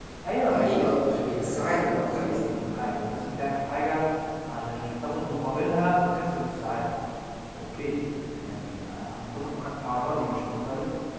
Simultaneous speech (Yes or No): Yes